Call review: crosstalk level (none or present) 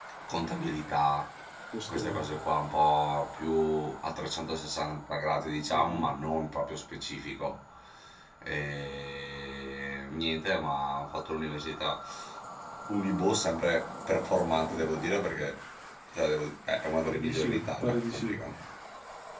present